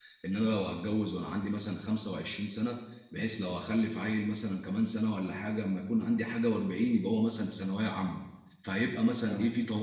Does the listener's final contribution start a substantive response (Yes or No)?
No